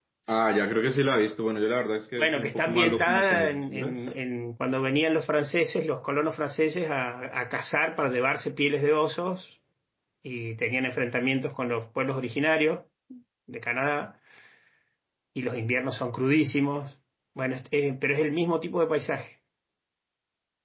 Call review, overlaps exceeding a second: present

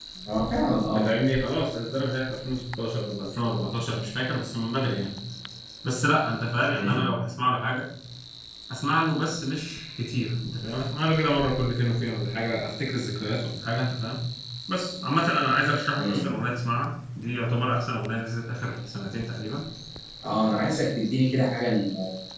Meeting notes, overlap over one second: none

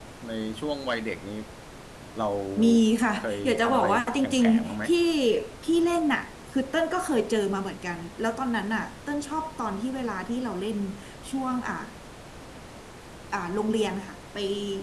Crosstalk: present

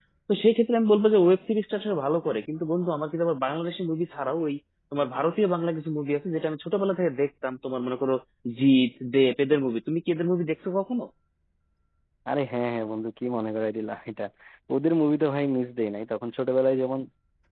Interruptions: none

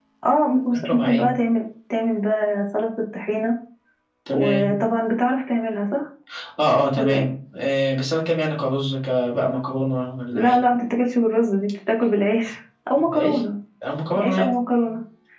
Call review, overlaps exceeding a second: none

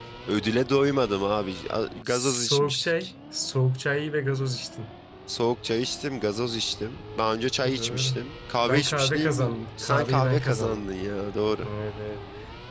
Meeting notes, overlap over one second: present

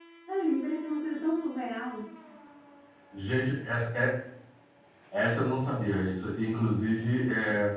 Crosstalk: none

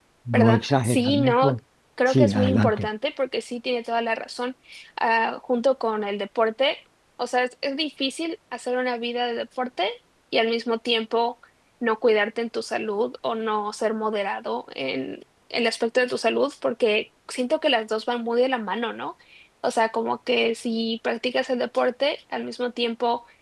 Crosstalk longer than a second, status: present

